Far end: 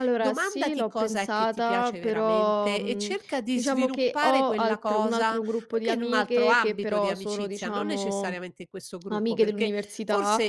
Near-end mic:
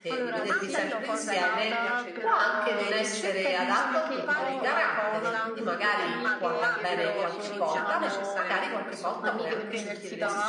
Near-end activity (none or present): present